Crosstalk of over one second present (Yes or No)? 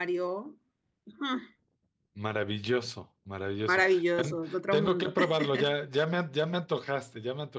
Yes